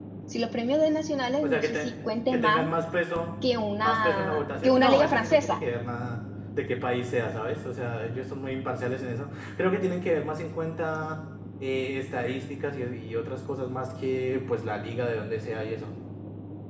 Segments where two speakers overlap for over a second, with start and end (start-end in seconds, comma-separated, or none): 3.8-5.6